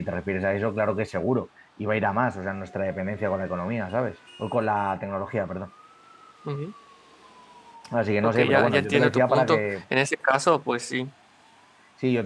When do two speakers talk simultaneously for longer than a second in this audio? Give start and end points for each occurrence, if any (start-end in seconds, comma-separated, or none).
8.2-9.8